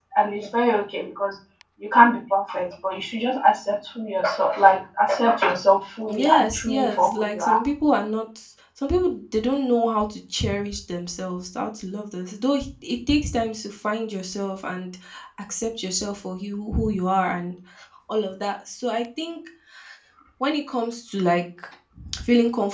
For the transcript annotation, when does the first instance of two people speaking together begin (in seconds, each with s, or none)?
6.1 s